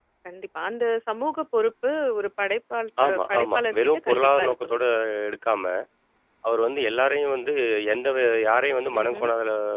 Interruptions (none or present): present